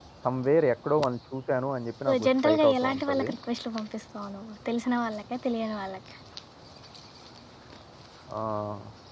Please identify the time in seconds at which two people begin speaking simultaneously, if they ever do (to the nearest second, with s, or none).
2 s